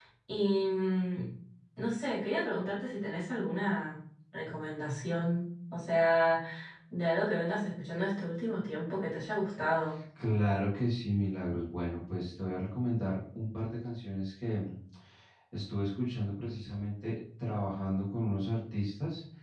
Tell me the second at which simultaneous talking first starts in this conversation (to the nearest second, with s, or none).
none